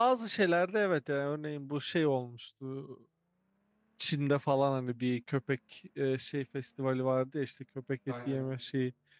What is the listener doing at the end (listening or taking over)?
listening